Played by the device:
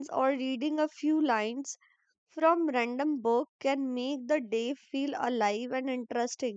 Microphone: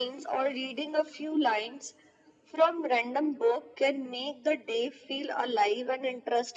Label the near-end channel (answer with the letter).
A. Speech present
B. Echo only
B